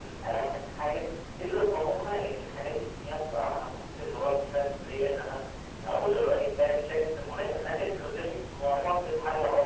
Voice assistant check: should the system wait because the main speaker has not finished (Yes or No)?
Yes